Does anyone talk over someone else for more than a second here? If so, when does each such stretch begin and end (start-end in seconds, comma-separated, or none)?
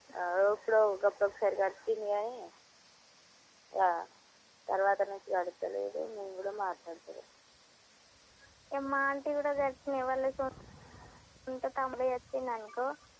none